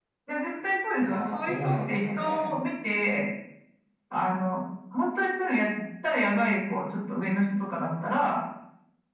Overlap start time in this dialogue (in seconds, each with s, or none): 1.0 s